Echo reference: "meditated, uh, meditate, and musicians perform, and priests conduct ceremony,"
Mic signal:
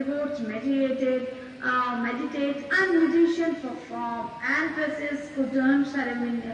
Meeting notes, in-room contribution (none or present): none